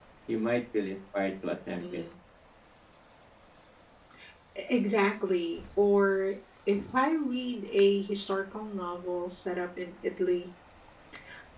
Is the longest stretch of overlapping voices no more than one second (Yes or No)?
Yes